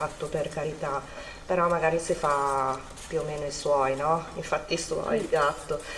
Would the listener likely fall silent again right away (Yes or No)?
Yes